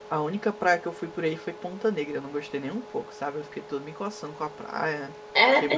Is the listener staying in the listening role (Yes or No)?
No